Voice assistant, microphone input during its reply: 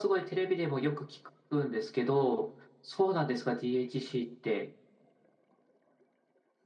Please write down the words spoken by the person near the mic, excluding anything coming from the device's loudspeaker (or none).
none